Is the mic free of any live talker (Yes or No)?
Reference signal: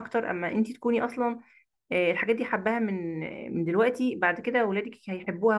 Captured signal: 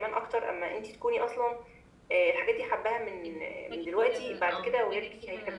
No